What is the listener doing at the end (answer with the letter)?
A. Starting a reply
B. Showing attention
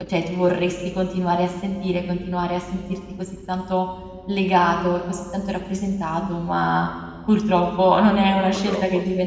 B